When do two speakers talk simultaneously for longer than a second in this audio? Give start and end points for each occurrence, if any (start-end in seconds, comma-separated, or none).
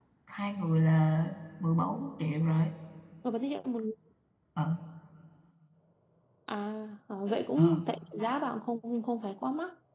none